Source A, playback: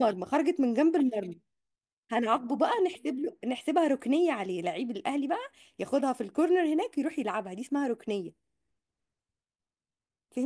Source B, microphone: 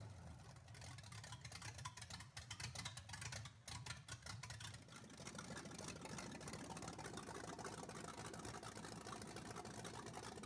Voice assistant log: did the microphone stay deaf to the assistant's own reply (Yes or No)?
Yes